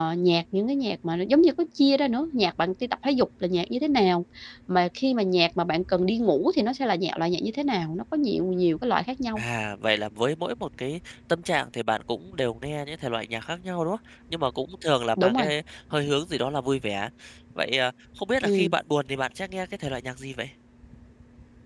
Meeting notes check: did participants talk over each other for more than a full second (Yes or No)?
No